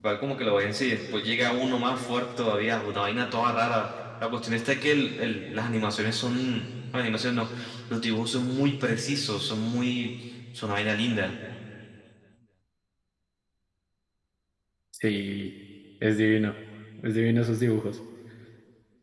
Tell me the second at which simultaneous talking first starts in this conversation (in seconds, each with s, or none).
none